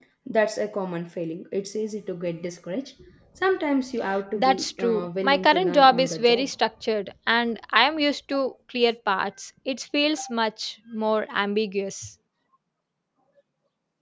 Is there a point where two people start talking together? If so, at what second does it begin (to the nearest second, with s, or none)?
4 s